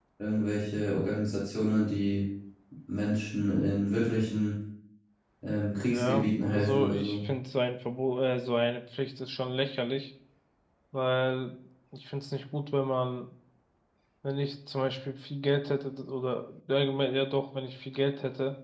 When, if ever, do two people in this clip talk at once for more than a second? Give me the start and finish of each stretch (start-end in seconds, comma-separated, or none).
5.9-7.2